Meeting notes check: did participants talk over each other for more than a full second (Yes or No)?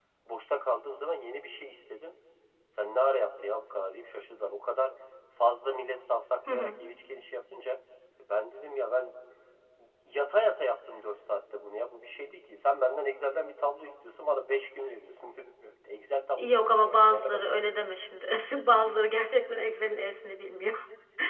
Yes